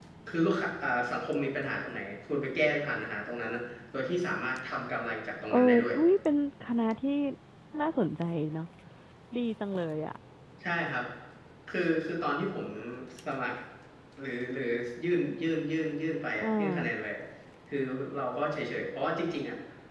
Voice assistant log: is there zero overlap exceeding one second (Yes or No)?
Yes